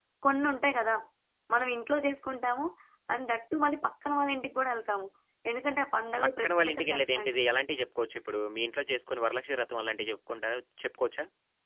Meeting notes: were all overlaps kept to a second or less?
No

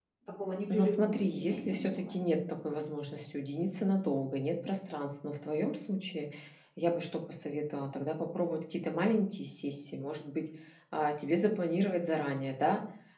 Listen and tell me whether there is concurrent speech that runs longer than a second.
Yes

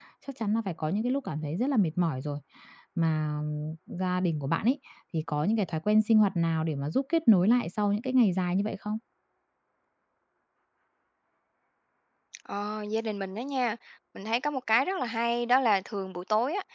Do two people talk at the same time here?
No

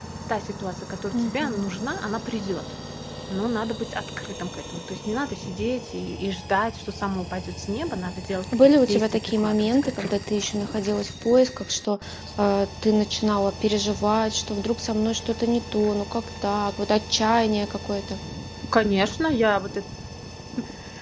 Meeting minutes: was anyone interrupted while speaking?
Yes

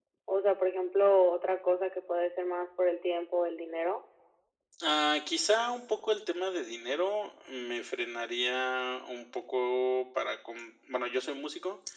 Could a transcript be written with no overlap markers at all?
Yes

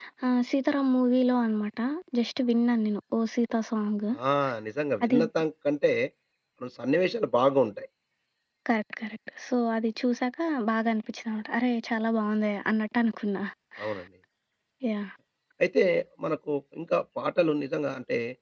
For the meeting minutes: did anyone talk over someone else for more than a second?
No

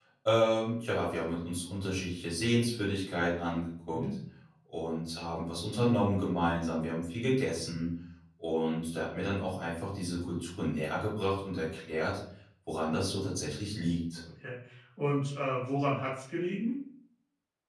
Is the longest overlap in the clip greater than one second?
No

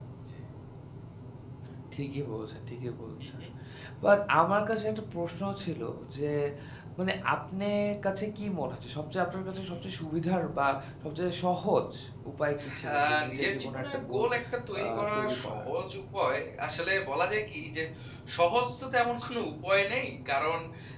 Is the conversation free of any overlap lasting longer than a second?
No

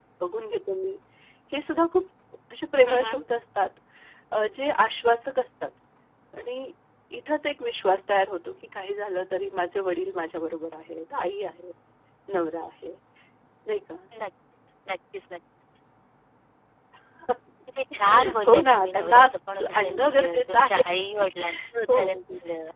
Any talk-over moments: Yes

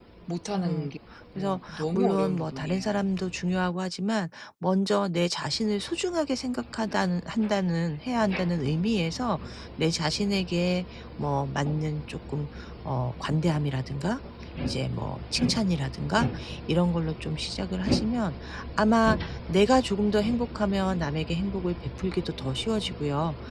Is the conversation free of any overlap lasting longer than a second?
No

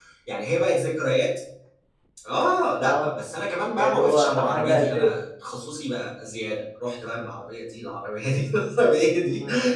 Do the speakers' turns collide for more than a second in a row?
Yes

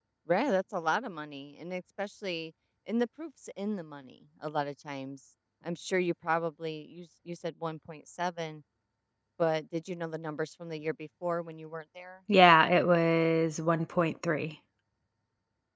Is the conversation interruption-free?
Yes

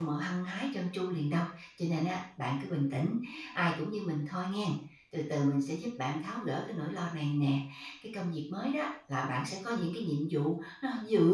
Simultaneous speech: No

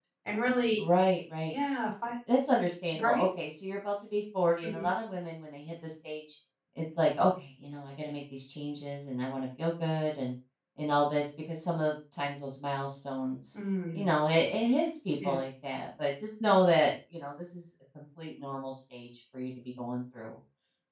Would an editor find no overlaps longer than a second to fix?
Yes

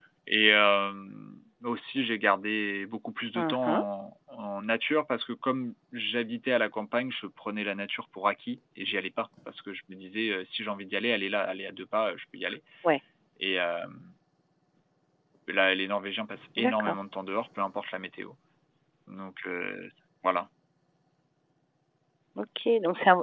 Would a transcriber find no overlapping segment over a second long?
Yes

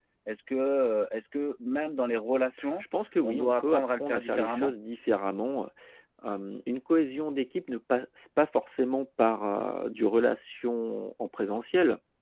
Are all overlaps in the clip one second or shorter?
No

